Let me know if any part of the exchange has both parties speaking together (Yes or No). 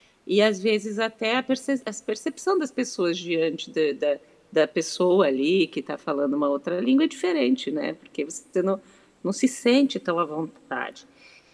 No